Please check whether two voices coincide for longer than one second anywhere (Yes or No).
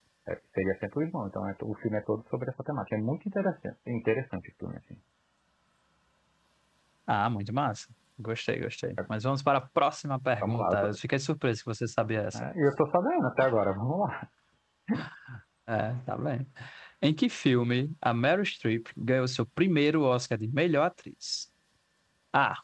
No